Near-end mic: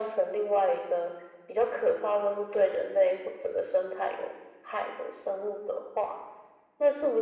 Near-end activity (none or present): none